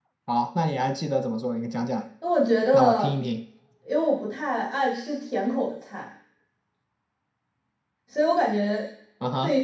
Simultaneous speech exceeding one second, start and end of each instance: none

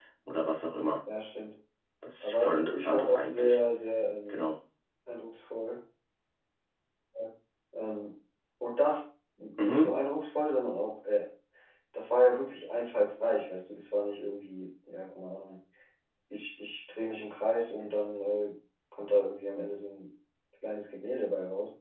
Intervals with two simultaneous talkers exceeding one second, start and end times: 2.2-3.6

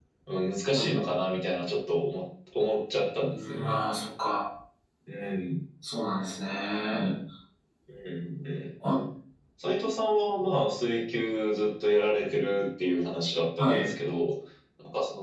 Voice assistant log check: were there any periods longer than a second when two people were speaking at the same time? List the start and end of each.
none

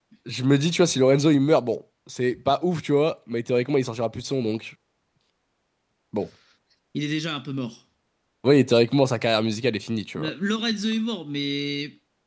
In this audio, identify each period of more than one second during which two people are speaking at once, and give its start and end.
none

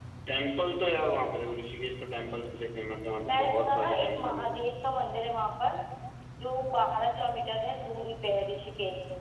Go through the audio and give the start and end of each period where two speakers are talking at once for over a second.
3.3-4.5

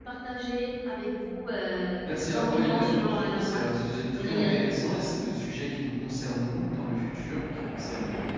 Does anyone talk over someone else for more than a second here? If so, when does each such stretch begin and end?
2.0-3.7

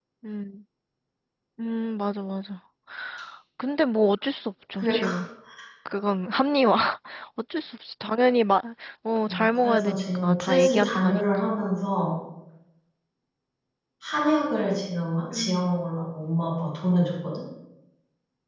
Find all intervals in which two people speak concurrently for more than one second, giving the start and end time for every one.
9.3-11.4

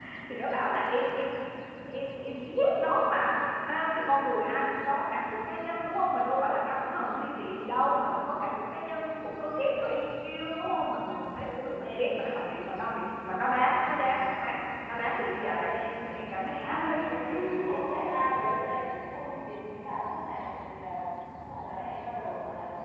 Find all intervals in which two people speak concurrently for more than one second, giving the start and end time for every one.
none

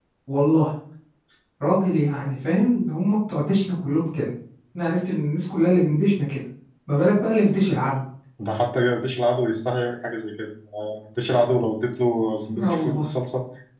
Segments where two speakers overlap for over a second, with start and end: none

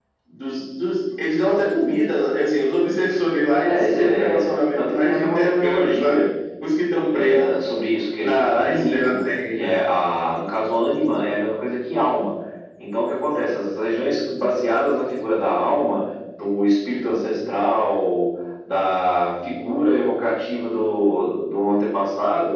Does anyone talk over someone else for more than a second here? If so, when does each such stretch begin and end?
3.7-6.3, 8.2-9.8

